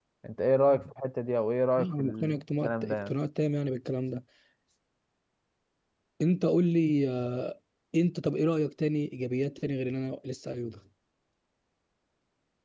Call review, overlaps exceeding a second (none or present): present